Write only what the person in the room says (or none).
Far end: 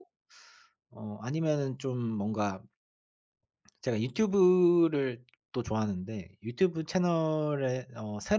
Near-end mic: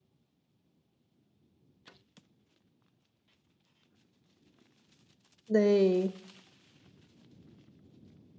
네.